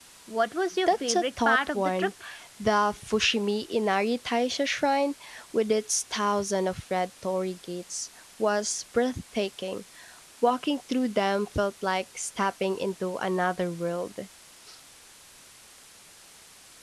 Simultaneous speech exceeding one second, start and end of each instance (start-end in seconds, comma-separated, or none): 0.9-2.1